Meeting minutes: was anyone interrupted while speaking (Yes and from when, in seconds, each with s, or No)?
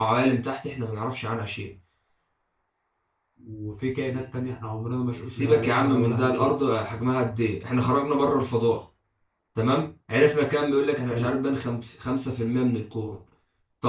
Yes, from 5.2 s